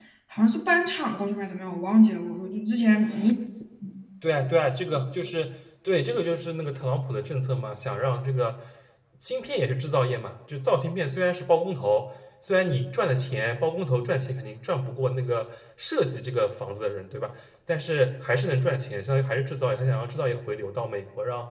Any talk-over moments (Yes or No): No